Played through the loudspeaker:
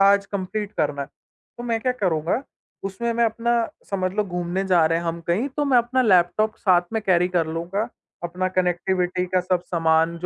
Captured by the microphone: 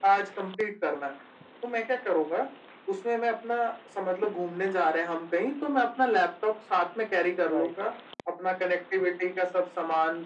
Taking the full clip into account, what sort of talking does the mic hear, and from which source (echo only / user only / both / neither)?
both